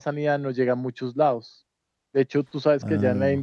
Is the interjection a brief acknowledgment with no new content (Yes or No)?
Yes